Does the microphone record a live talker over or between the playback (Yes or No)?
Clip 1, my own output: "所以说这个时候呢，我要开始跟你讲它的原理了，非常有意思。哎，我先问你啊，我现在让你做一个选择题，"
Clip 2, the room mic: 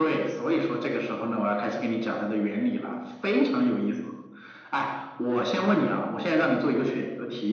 No